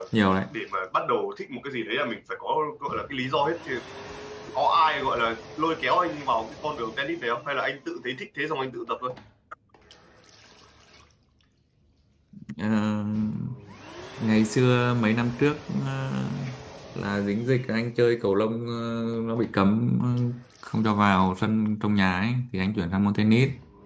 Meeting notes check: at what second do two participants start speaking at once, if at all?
none

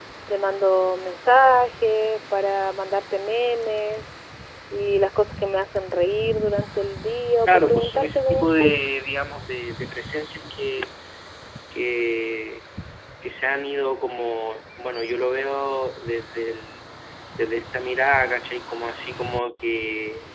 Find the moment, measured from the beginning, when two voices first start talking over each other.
7 s

